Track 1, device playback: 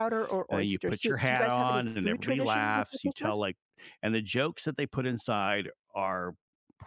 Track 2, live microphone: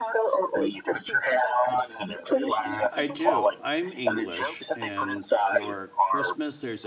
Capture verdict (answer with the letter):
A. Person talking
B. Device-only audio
A